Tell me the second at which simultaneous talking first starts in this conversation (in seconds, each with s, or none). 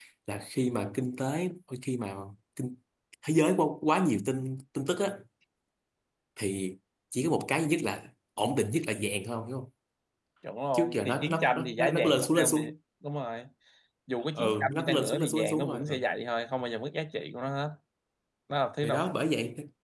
10.7 s